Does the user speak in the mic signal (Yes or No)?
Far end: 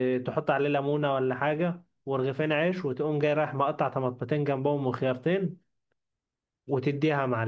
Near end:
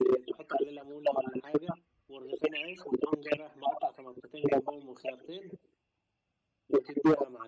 No